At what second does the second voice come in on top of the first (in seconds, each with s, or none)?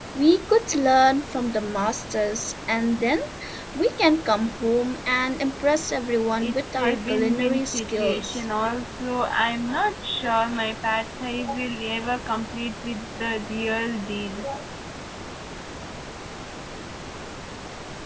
6.4 s